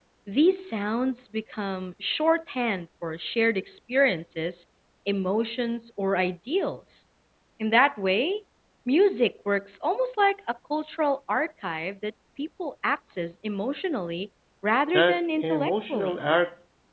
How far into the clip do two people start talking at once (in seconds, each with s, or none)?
14.9 s